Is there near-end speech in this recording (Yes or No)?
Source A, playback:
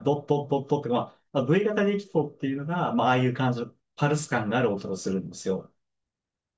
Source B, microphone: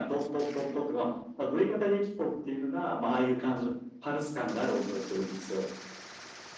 No